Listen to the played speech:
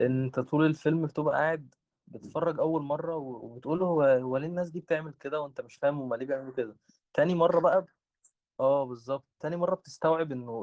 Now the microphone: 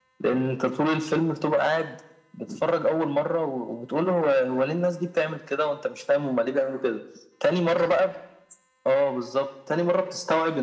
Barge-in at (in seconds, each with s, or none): none